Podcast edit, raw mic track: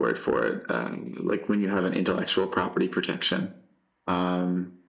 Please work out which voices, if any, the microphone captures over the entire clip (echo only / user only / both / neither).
echo only